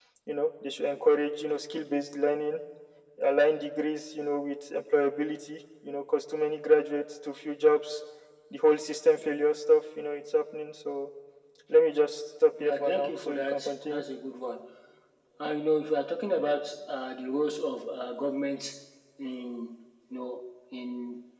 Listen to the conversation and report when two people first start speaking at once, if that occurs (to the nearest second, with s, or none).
13 s